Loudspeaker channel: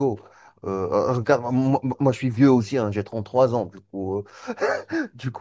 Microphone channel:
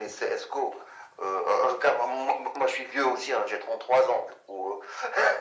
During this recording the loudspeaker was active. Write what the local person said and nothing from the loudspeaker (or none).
none